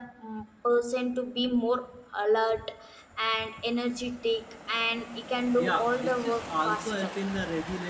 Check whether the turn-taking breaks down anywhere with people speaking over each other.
Yes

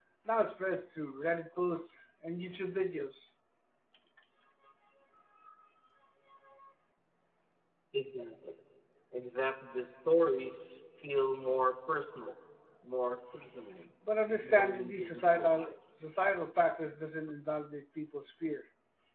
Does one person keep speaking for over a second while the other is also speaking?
Yes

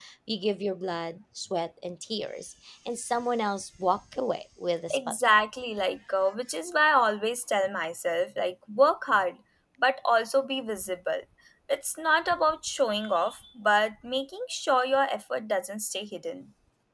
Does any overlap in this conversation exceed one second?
No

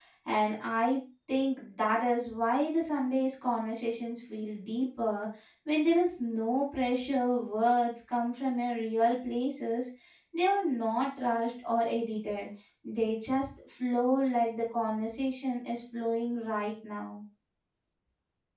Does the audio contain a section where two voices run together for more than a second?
No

